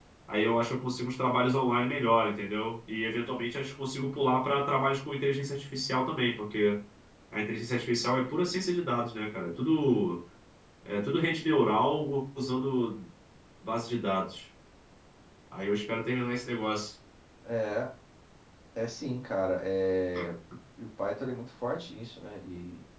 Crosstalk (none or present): none